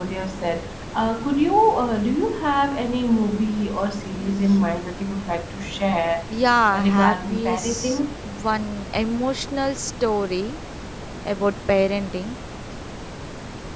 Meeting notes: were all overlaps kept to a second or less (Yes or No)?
No